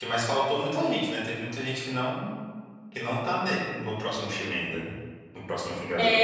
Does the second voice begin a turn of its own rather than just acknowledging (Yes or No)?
Yes